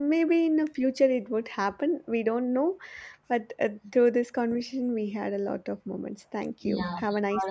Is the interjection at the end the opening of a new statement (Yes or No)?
Yes